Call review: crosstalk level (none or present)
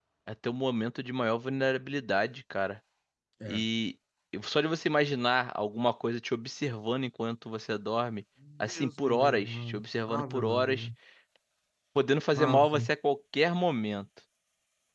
present